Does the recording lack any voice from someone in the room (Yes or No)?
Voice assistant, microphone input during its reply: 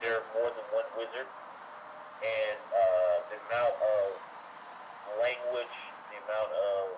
Yes